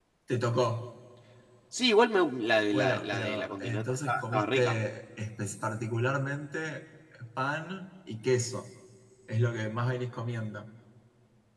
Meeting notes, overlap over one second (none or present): present